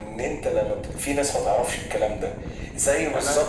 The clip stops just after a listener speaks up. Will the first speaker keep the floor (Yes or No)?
Yes